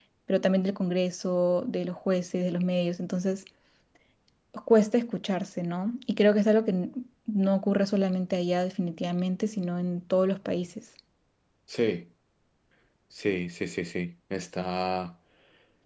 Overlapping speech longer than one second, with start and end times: none

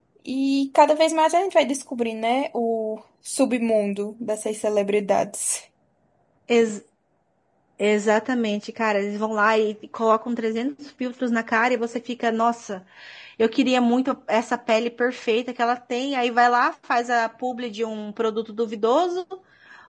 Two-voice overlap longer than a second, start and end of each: none

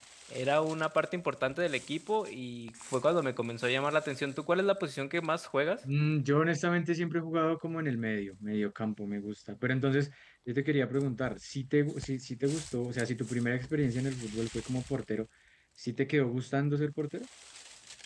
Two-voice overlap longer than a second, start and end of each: none

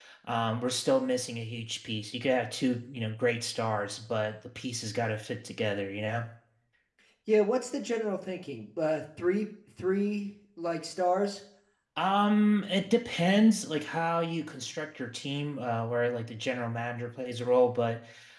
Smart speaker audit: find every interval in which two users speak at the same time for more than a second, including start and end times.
none

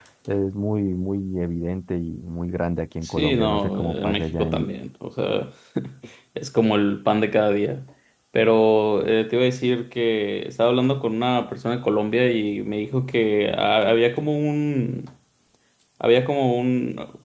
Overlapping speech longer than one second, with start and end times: 3.0-4.6

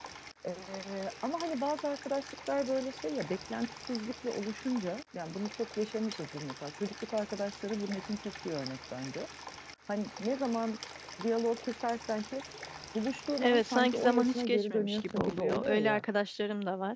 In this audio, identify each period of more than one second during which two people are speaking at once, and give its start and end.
13.4-16.0

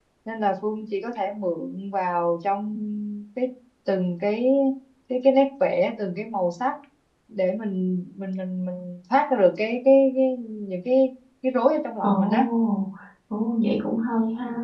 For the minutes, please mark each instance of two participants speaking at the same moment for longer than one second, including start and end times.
none

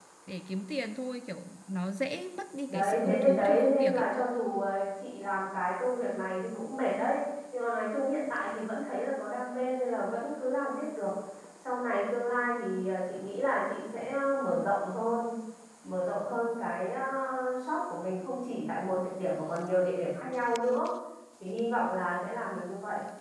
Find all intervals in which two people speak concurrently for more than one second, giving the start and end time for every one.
2.7-4.1

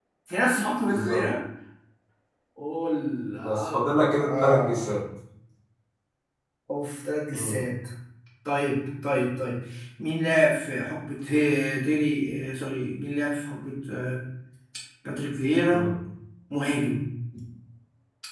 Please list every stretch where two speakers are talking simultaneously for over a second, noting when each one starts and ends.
3.4-5.0

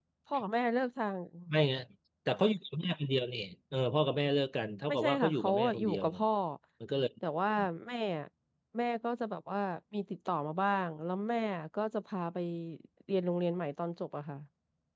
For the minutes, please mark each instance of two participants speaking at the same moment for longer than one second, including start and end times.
4.9-6.2

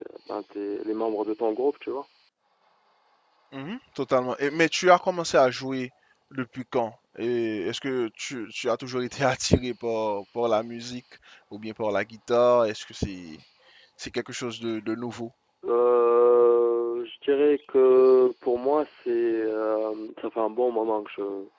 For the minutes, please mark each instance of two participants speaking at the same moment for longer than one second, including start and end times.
none

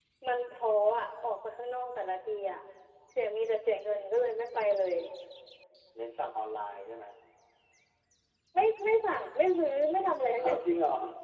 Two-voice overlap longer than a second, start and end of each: none

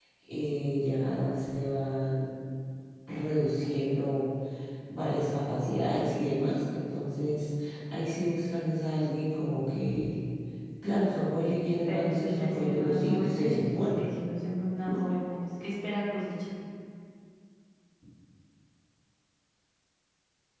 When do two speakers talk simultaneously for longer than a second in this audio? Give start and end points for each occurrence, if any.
11.9-14.1

